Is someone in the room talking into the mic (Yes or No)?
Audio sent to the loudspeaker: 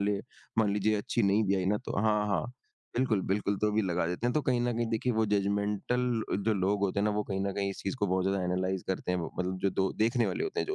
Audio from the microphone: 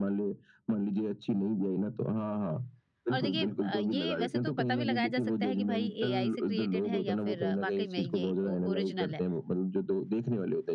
Yes